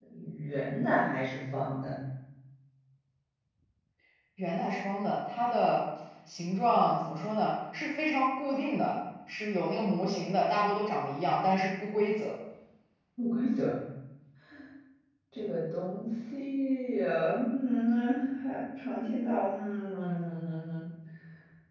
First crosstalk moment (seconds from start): none

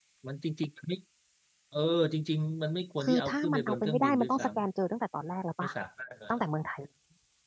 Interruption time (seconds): 3.0 s

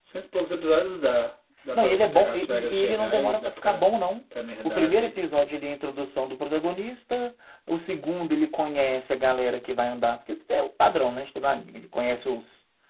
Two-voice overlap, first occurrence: 1.8 s

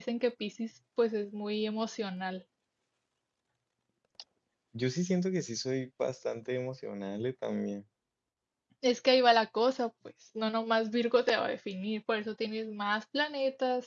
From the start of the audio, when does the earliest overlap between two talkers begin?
none

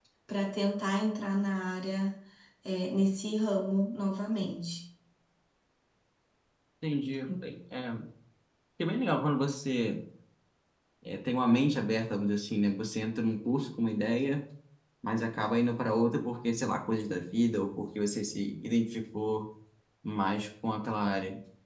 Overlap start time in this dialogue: none

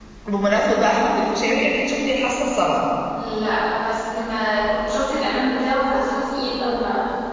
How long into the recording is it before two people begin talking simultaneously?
none

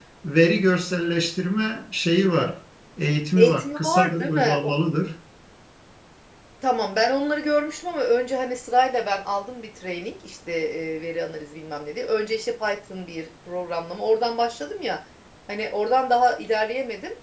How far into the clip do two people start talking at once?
3.4 s

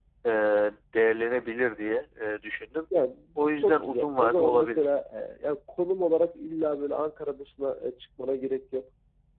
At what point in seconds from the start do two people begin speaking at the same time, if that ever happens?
3.6 s

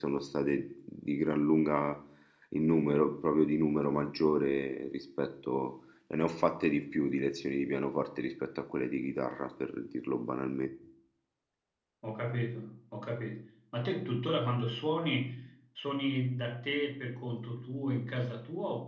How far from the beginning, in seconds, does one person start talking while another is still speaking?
none

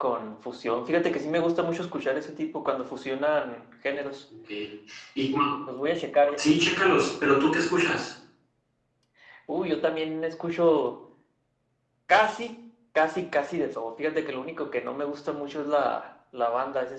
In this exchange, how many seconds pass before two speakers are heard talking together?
none

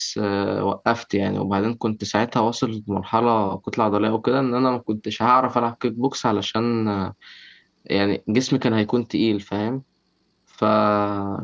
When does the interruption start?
none

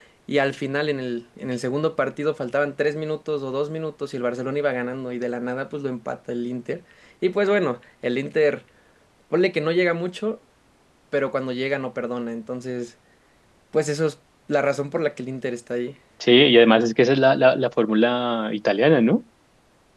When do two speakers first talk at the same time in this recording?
none

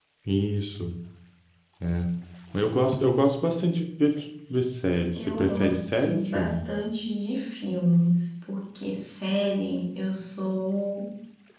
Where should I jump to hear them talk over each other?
5.1 s

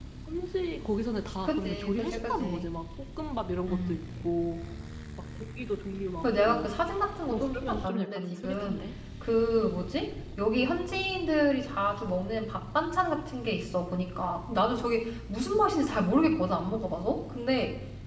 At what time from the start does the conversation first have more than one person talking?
1.4 s

